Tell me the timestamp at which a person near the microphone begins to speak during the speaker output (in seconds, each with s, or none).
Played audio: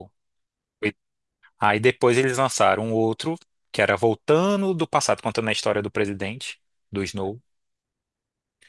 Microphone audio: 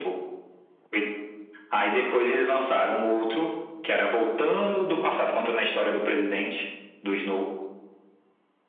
none